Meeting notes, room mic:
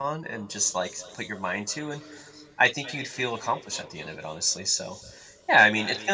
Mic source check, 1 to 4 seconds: user only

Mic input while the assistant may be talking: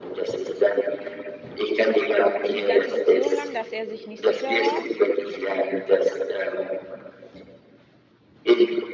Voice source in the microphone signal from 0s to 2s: echo only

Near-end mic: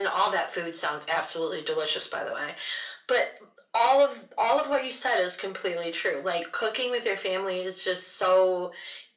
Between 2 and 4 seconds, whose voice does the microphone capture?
echo only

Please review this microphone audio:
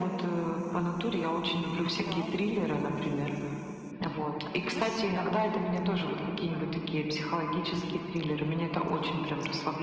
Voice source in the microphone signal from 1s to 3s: both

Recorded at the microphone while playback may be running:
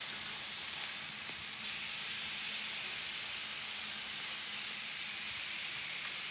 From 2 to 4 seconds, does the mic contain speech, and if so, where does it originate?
neither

